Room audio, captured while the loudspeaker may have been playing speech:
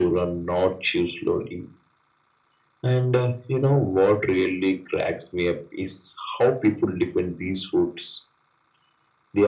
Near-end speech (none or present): none